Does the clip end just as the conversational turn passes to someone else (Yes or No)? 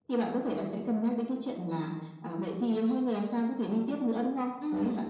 No